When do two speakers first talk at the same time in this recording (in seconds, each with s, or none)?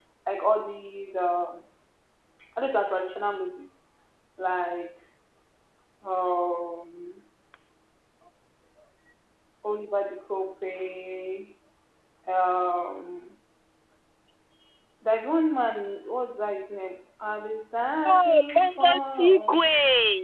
18.1 s